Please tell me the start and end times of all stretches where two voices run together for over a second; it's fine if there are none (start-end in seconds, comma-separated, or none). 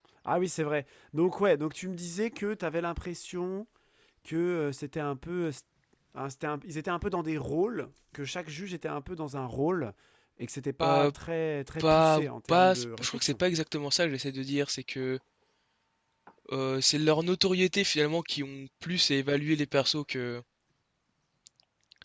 11.8-13.3